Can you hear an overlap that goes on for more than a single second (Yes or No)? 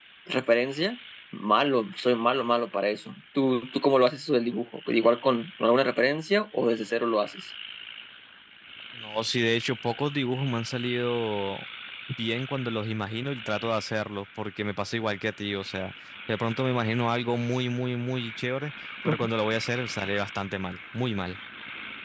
No